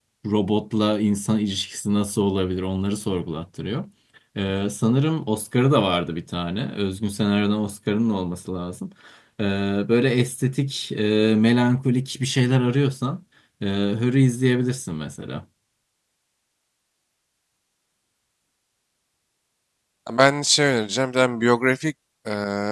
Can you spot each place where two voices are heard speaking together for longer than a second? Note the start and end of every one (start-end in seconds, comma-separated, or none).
none